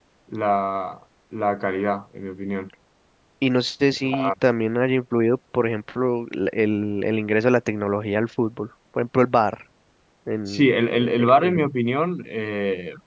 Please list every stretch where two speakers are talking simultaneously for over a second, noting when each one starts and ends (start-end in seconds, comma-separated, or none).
10.5-11.7